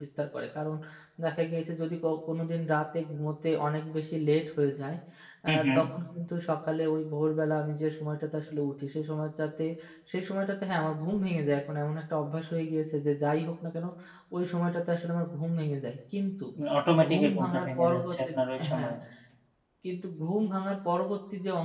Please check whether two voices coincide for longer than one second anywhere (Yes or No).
Yes